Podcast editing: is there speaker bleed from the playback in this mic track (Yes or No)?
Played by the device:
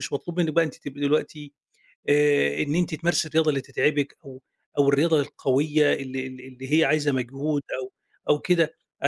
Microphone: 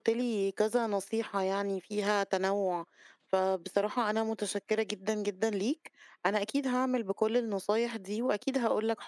No